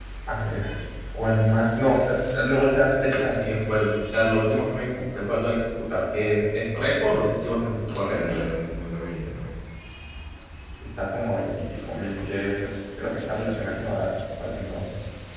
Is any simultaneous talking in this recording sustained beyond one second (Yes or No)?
No